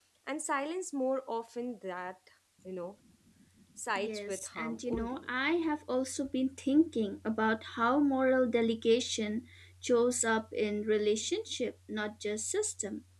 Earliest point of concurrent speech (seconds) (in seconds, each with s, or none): 4.0 s